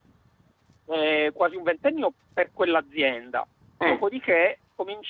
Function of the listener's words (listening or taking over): listening